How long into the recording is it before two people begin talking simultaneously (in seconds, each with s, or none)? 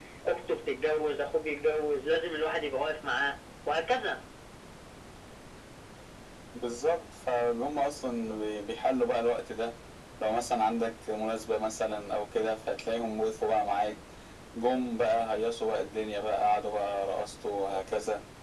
none